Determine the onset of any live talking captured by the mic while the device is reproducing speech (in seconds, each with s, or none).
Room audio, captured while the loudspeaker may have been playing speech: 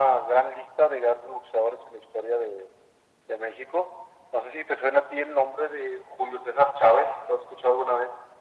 none